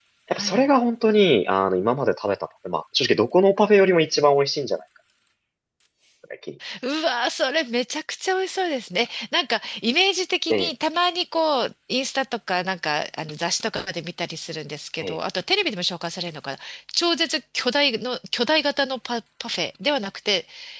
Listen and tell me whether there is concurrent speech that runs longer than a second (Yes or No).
No